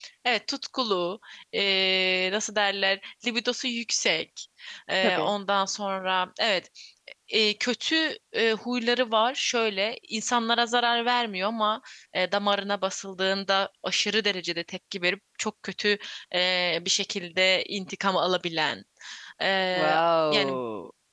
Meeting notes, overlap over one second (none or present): none